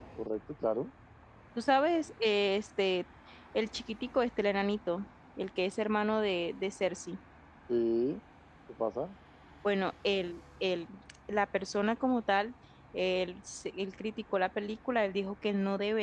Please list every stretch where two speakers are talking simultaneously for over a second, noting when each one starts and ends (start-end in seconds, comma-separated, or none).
none